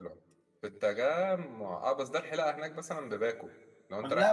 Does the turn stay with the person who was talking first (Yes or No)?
No